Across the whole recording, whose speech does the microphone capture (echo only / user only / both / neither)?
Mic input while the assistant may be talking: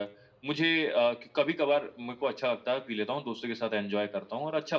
echo only